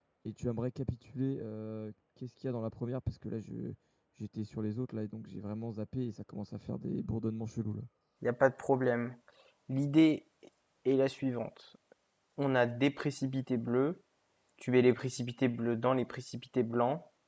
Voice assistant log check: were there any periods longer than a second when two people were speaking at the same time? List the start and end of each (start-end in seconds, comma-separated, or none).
none